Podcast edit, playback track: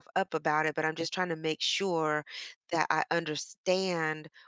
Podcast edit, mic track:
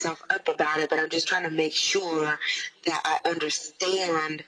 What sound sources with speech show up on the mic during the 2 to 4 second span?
echo only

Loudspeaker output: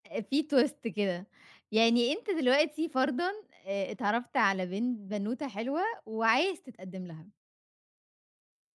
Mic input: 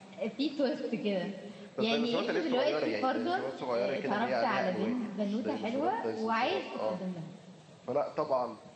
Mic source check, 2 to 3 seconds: both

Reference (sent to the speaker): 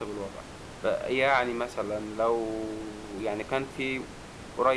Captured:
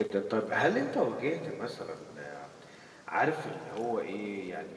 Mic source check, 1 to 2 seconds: user only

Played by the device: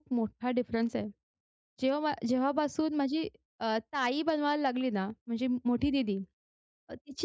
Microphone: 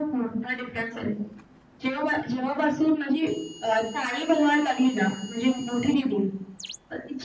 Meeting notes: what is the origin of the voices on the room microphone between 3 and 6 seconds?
echo only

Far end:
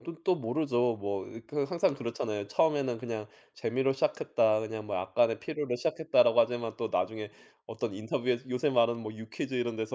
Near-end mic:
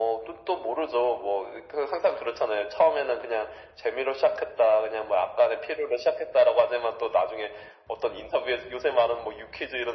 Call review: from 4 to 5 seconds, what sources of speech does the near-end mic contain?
echo only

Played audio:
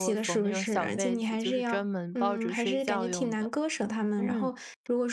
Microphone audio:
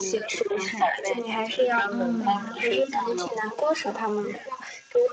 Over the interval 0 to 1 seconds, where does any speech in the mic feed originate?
echo only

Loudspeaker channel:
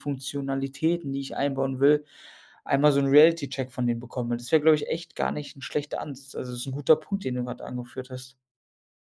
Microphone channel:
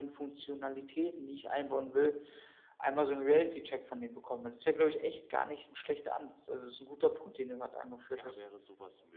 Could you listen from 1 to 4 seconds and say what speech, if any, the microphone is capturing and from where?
echo only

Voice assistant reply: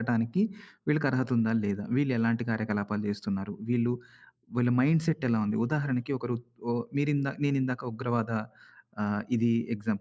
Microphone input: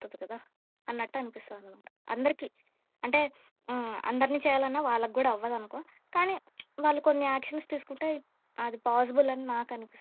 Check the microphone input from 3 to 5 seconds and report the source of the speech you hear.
user only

